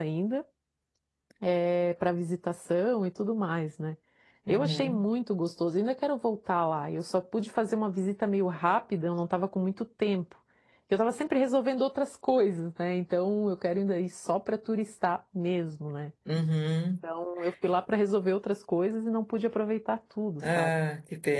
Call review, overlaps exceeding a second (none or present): none